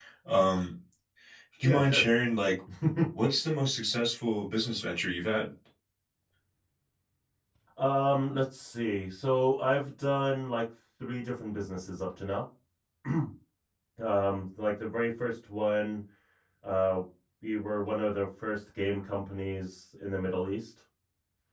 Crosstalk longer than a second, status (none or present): none